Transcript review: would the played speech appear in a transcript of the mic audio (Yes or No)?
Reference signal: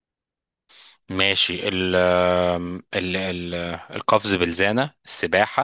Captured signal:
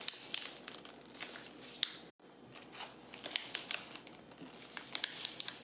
No